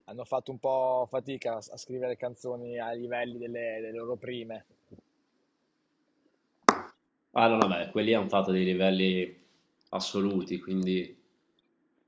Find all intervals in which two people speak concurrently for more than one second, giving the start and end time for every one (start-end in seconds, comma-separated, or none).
none